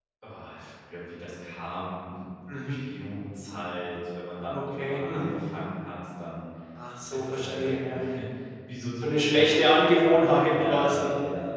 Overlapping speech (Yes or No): Yes